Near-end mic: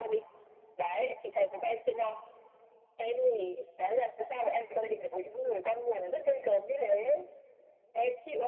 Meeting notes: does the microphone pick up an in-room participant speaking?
No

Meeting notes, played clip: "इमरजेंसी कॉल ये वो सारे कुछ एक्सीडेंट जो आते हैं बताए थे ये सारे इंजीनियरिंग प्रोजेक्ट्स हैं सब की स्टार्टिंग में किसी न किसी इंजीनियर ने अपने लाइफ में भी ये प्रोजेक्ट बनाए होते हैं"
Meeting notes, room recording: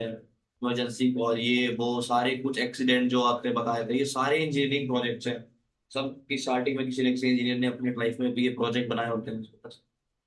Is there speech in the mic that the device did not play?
No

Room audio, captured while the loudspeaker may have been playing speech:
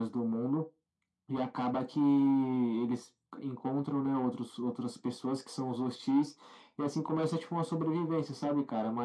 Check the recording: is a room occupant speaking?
No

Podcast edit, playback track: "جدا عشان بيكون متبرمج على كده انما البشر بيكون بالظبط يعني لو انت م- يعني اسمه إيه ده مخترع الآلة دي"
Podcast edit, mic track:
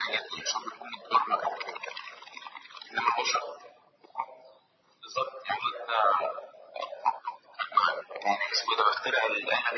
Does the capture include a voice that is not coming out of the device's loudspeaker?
No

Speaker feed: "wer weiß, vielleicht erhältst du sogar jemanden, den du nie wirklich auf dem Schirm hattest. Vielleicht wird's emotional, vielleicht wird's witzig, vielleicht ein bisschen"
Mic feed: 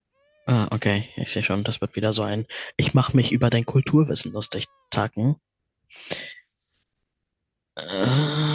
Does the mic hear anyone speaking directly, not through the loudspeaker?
Yes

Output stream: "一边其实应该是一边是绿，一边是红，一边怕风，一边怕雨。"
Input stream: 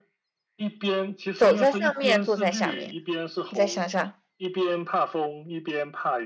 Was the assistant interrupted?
Yes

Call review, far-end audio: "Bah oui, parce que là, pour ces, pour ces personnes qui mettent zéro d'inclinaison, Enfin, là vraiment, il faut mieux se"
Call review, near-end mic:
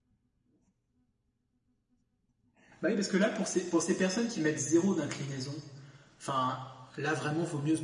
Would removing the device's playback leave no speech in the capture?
Yes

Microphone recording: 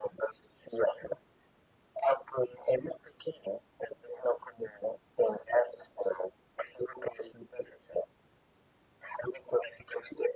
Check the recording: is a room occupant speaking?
No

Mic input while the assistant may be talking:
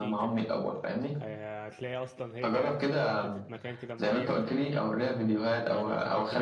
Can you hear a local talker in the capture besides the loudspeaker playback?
Yes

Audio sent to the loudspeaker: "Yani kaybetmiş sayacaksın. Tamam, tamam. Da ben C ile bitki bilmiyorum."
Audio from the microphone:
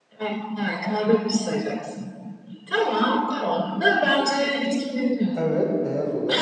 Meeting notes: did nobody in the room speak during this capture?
No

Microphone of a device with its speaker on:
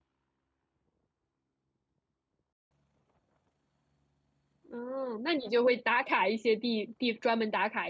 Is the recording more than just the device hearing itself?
Yes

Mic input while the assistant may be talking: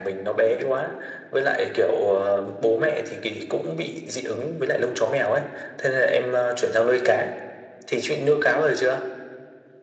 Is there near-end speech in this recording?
No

